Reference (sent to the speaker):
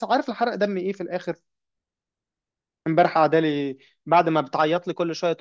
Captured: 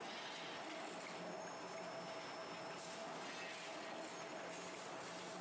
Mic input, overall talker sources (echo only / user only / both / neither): neither